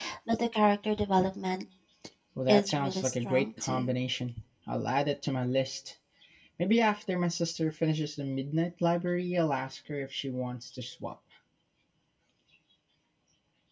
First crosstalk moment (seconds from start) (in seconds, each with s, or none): 2.5 s